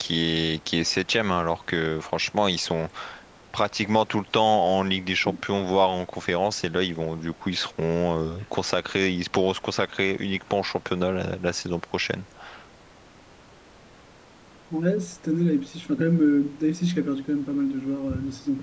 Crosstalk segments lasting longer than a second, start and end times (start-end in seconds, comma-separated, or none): none